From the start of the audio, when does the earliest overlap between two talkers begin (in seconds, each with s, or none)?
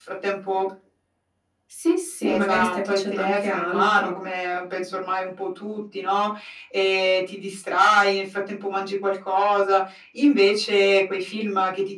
2.2 s